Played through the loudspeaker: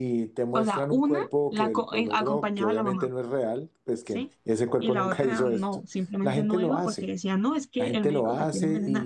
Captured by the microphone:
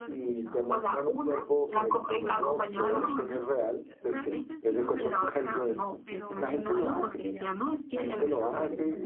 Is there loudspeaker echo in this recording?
Yes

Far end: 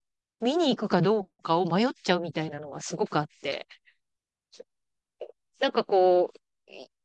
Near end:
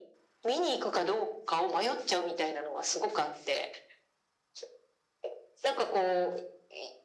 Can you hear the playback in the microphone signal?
Yes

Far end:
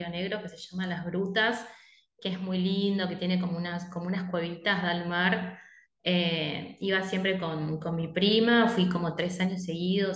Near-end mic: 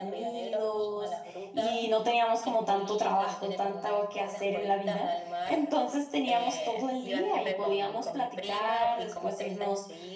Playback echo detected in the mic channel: Yes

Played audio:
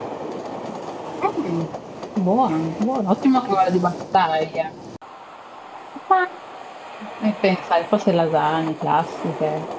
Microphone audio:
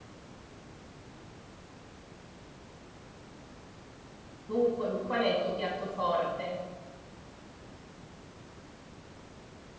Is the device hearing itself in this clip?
No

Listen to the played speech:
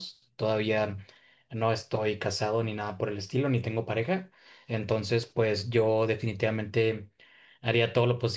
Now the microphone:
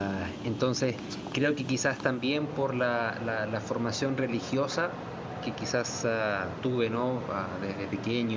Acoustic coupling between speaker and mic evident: No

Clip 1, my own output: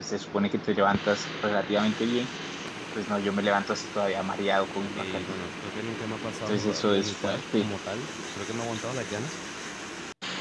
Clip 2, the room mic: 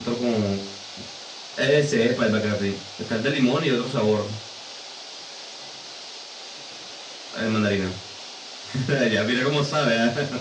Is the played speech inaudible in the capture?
Yes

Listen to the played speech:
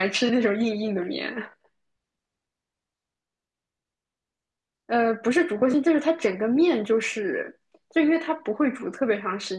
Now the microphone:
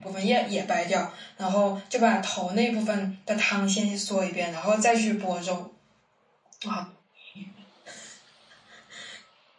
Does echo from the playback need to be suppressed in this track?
No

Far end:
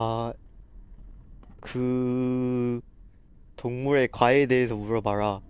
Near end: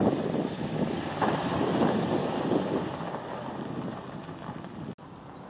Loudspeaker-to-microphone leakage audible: No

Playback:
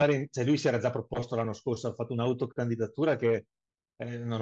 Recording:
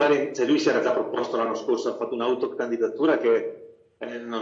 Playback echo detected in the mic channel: Yes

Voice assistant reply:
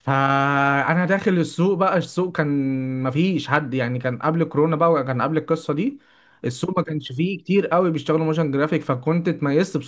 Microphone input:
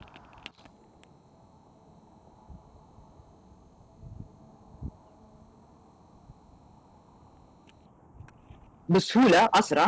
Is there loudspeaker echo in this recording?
No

